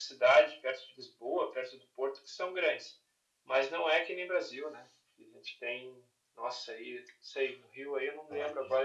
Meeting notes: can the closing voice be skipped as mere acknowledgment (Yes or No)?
Yes